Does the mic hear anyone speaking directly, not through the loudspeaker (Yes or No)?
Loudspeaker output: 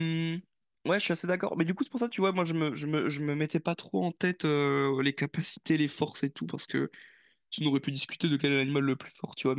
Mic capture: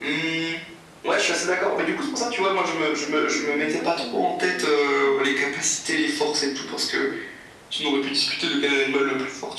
Yes